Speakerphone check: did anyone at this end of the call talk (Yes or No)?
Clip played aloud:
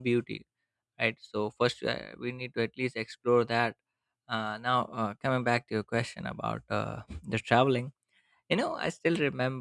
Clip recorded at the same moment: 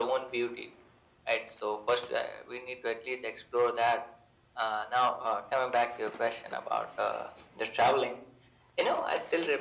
No